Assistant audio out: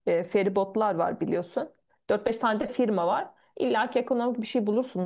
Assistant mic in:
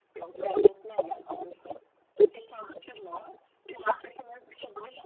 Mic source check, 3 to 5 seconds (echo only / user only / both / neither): echo only